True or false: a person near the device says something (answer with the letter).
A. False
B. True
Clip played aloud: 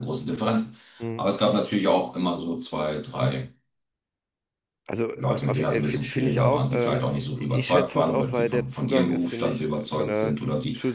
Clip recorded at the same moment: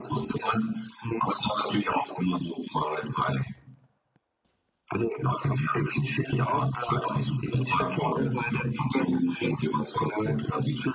A